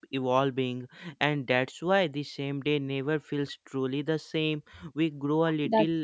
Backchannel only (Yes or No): Yes